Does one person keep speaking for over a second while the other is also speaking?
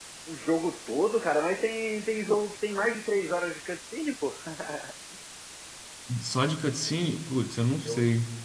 No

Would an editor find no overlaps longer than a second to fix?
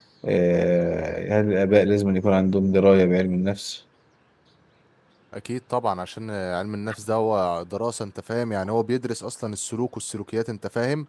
Yes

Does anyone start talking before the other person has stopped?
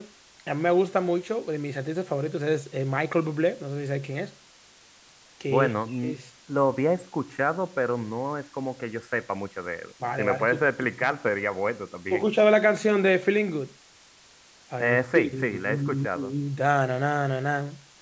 Yes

